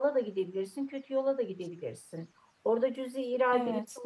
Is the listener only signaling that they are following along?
Yes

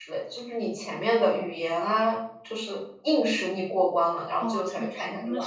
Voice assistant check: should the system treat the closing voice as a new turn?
Yes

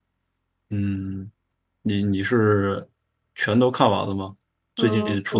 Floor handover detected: Yes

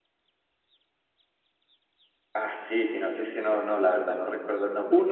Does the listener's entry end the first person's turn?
No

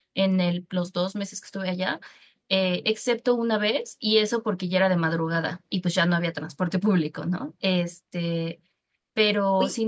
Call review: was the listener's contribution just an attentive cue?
Yes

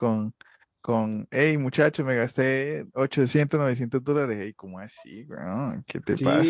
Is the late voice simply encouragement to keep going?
No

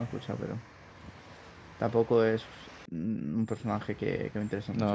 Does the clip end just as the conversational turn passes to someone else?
Yes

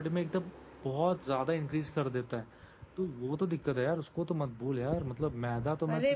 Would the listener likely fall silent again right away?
Yes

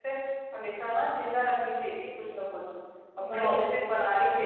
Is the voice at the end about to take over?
No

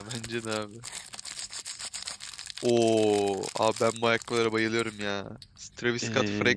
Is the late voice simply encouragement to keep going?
Yes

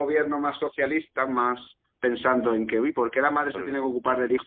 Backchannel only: Yes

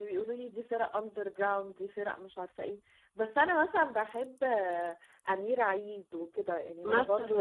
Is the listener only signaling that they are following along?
Yes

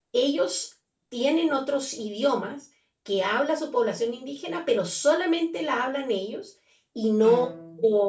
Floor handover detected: No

